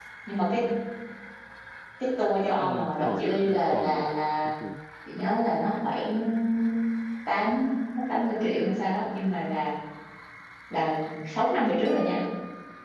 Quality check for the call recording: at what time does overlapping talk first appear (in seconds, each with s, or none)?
2.6 s